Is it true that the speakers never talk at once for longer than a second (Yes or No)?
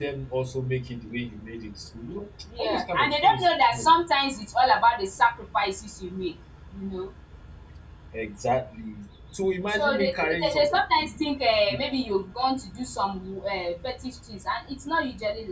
No